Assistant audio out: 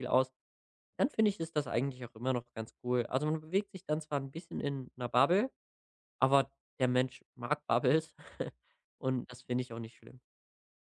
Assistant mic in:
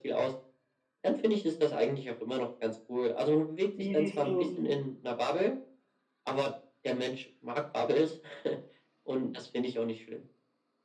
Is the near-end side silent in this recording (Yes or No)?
No